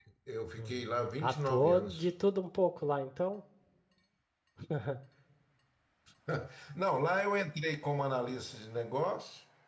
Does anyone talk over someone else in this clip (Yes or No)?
Yes